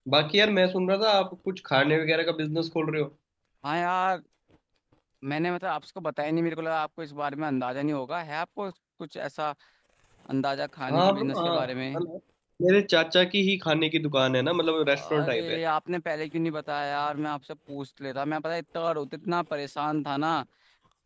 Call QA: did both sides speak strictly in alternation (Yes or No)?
No